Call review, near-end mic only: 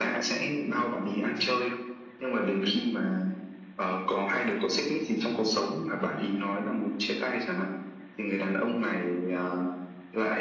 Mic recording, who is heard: echo only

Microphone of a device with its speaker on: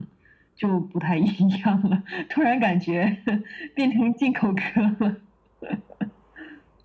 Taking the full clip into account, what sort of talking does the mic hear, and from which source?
echo only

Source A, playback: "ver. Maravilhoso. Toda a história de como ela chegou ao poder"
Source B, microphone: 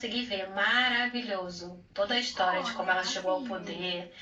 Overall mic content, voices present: both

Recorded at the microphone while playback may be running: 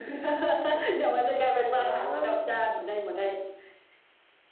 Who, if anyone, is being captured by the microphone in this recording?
both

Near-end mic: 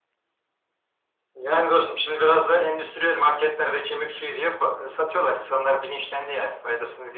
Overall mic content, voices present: echo only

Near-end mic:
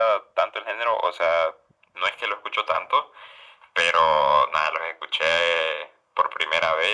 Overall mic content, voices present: echo only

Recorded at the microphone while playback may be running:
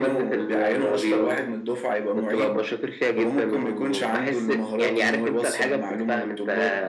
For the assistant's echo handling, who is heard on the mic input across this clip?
echo only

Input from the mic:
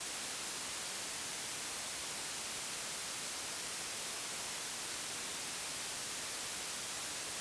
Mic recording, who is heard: neither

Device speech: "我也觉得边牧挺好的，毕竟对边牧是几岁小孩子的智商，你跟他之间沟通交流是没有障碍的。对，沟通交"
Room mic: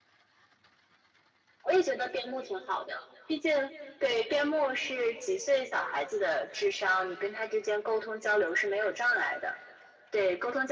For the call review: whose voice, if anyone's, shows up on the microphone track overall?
echo only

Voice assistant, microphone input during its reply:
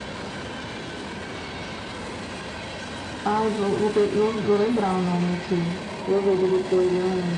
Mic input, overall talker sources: echo only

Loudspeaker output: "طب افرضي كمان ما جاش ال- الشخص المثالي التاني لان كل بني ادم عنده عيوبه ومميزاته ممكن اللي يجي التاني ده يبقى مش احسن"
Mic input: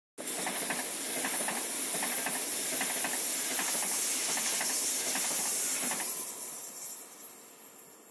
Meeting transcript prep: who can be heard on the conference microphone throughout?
neither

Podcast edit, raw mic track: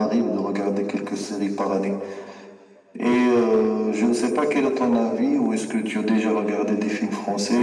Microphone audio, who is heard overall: echo only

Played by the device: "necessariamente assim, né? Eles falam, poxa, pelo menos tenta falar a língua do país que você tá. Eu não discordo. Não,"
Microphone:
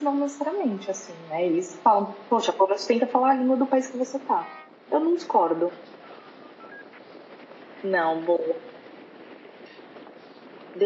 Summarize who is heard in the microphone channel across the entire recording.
echo only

